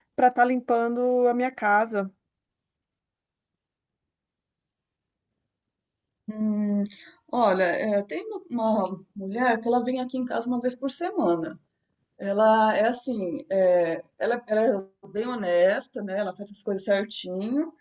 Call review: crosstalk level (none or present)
none